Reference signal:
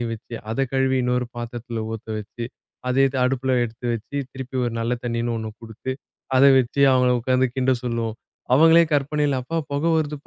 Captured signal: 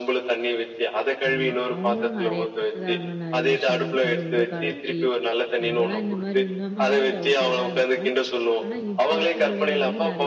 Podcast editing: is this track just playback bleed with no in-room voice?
No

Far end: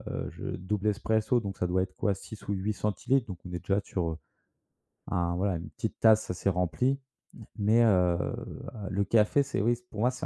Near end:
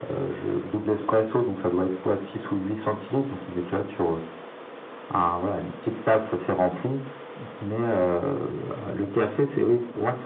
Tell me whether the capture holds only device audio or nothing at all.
Yes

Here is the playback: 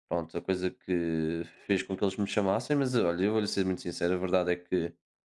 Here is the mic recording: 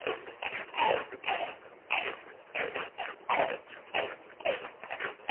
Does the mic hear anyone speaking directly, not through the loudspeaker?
No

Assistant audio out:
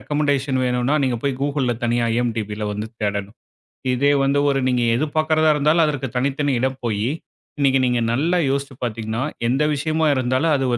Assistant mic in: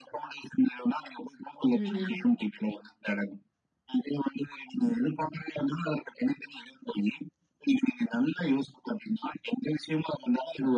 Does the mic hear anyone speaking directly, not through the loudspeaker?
Yes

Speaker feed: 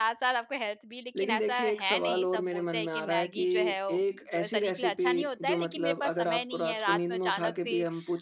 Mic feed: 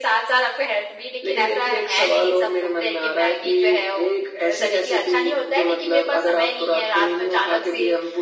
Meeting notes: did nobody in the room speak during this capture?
Yes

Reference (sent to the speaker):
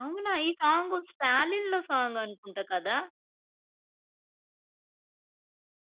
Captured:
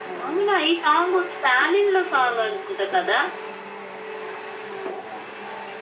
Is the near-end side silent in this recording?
Yes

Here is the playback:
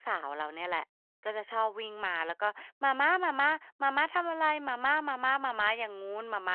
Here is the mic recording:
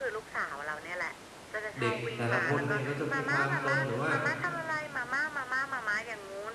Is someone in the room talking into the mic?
Yes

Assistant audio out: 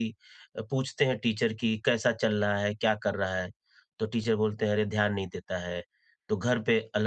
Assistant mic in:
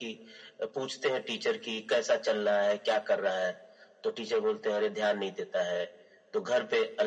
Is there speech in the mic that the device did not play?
No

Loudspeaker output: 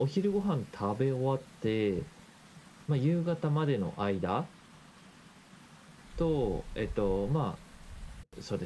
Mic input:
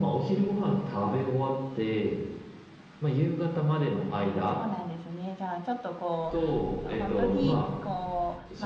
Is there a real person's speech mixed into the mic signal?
Yes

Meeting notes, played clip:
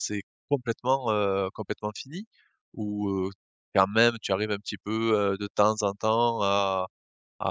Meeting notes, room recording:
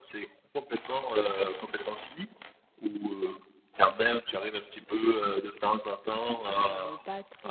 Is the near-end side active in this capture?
Yes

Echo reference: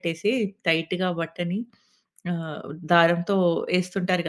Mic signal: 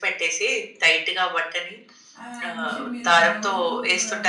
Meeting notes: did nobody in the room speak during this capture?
No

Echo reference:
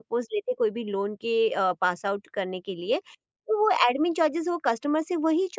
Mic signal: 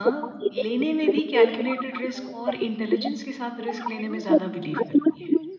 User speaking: Yes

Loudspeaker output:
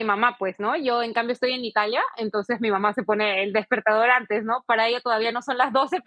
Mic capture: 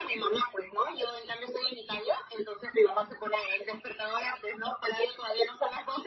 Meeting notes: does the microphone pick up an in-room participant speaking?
No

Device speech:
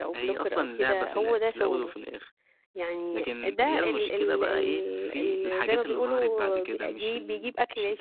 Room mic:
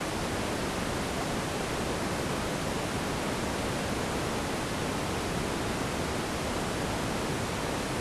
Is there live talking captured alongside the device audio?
No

